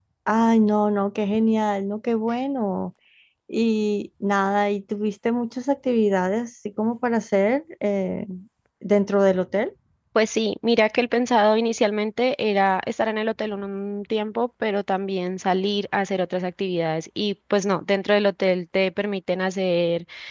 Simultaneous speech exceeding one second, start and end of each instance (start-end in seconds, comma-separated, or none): none